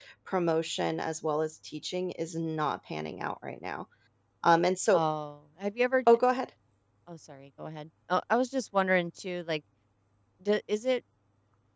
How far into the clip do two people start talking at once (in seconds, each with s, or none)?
none